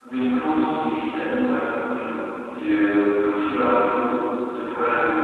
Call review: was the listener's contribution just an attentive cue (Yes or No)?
No